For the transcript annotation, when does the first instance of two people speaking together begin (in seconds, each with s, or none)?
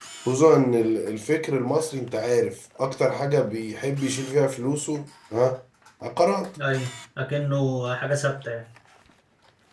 none